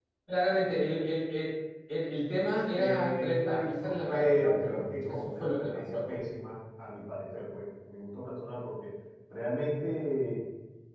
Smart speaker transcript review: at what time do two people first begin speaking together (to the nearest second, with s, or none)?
3 s